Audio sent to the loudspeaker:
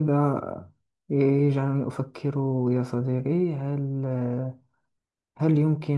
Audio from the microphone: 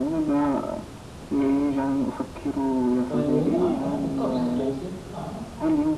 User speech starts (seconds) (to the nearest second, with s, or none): 3 s